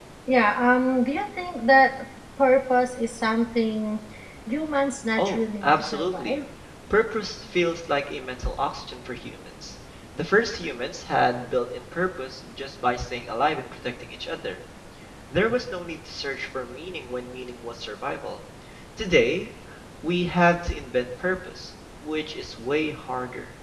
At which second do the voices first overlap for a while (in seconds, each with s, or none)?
5.2 s